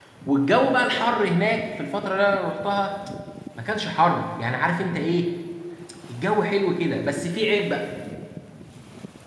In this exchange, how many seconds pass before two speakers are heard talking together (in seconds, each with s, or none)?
none